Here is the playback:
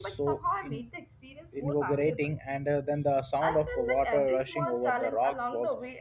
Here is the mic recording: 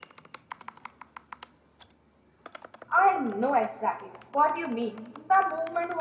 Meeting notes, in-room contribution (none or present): present